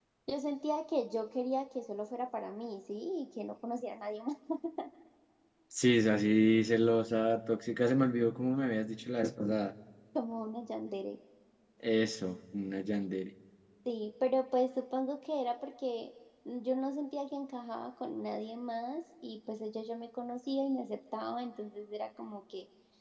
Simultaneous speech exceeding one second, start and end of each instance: none

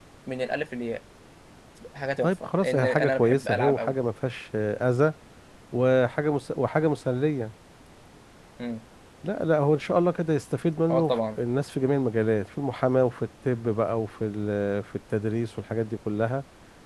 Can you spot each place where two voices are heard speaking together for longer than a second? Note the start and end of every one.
2.2-3.9

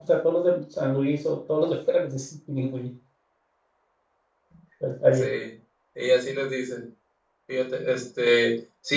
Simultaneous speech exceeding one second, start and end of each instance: none

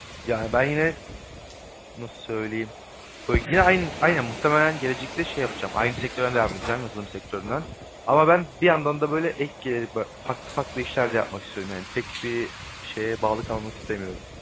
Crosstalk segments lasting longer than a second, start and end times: none

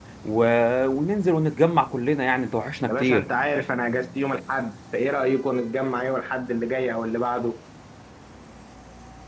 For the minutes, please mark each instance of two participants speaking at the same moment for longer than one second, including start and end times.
none

